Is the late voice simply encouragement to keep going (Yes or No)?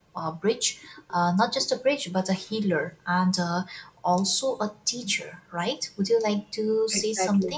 Yes